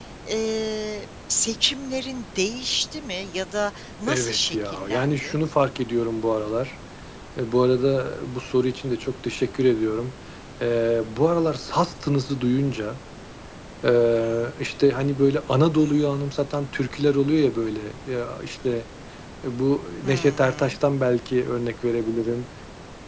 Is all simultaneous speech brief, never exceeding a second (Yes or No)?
No